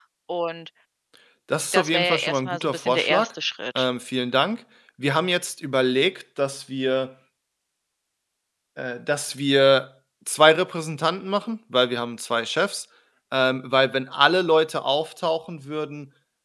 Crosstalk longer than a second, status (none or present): present